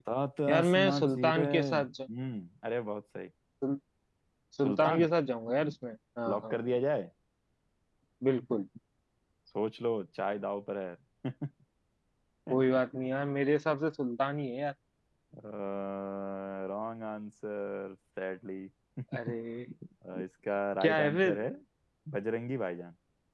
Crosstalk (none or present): present